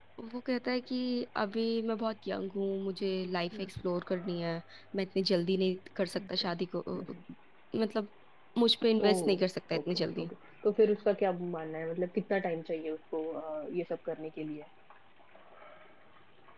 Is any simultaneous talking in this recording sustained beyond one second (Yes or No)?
No